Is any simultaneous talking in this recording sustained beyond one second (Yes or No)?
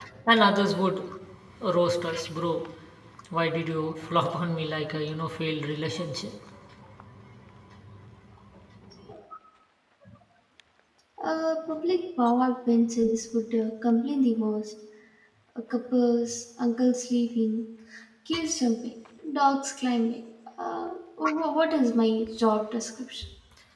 No